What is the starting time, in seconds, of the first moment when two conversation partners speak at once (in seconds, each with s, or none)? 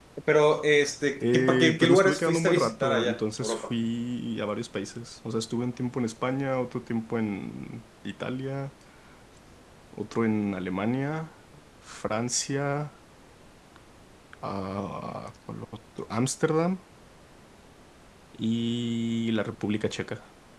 1.2 s